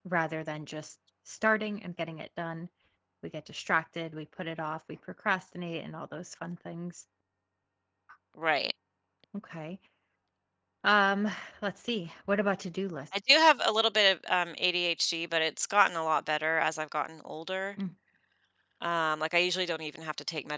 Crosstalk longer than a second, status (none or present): none